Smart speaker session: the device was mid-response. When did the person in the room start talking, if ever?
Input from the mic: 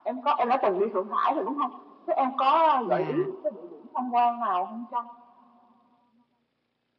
2.8 s

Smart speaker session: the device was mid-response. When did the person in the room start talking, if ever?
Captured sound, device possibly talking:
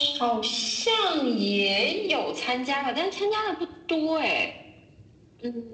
none

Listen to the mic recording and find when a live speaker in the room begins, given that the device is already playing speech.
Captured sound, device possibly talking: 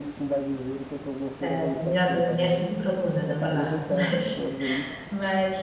1.4 s

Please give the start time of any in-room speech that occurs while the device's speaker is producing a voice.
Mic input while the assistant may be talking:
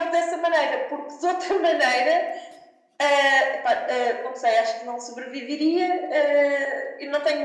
none

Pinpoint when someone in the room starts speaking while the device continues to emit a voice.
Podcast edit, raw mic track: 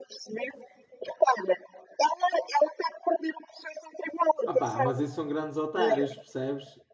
4.4 s

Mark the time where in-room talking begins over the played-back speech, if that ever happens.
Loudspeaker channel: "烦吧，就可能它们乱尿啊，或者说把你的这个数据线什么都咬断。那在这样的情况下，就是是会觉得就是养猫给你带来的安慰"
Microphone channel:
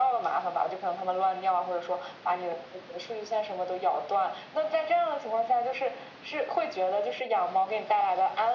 none

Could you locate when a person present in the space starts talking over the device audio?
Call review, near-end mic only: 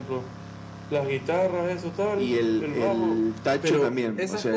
3.6 s

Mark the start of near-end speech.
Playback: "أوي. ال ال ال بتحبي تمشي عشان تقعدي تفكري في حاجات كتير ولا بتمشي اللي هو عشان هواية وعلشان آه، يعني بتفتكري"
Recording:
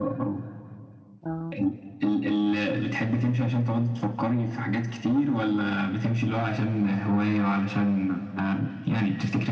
1.2 s

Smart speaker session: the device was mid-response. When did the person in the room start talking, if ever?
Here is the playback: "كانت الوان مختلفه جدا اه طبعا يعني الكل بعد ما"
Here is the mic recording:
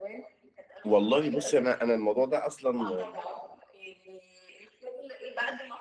0.8 s

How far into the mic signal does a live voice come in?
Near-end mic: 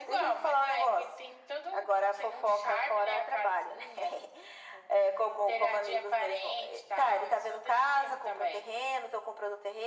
none

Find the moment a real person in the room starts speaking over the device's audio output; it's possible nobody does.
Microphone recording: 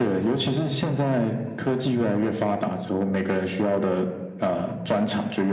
none

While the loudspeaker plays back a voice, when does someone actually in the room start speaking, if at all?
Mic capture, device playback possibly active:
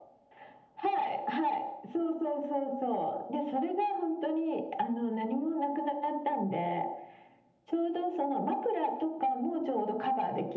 none

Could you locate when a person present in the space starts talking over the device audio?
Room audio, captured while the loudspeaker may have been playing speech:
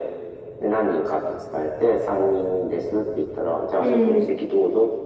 3.8 s

